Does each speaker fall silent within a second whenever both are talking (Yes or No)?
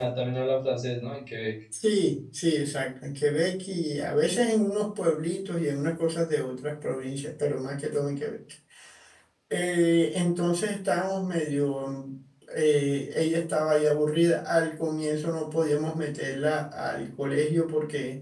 Yes